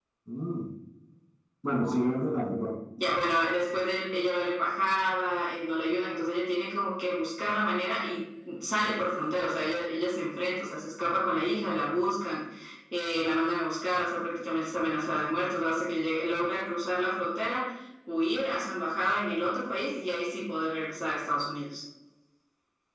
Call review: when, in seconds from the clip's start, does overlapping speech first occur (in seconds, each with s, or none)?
none